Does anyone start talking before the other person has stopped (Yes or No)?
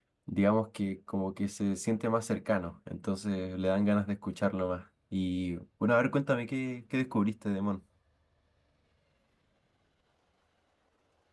No